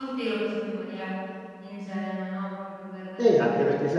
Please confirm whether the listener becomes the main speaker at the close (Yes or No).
Yes